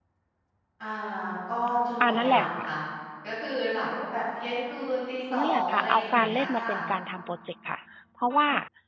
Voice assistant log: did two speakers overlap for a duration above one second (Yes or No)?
Yes